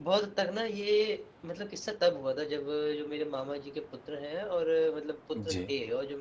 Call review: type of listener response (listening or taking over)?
listening